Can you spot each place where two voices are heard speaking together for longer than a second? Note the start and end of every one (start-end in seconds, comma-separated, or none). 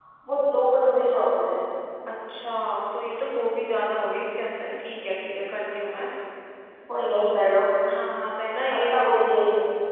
none